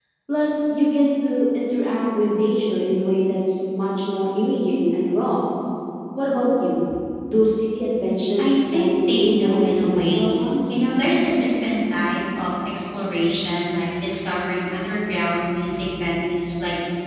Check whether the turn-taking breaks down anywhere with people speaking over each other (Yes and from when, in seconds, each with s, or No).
Yes, from 8.4 s